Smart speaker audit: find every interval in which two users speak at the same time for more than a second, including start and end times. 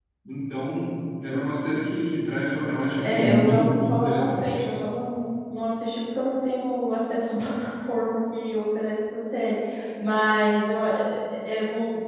3.0-4.6

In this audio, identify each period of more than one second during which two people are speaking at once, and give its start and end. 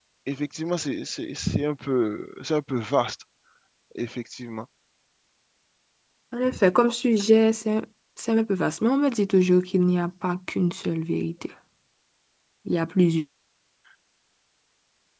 none

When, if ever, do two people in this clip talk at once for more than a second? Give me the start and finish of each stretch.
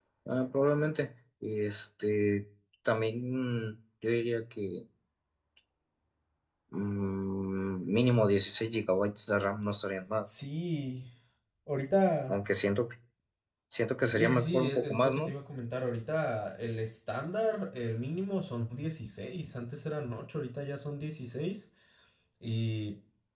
14.1-15.3

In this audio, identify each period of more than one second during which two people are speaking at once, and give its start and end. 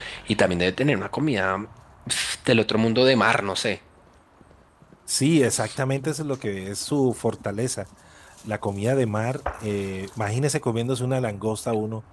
none

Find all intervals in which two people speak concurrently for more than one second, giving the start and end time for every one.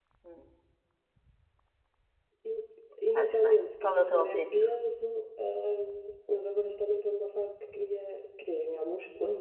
3.1-4.6

